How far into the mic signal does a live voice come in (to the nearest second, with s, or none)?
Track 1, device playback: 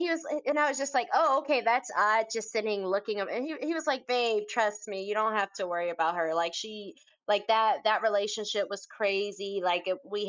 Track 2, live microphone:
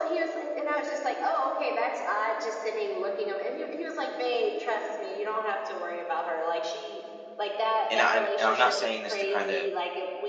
8 s